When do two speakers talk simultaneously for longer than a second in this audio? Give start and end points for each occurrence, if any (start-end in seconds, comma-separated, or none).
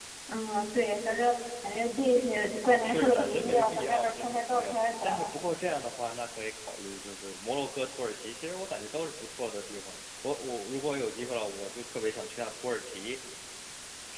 2.8-5.3